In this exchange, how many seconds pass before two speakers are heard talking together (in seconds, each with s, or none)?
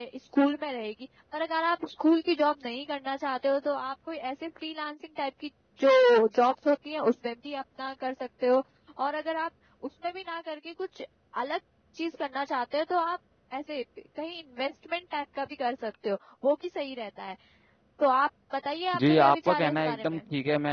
18.9 s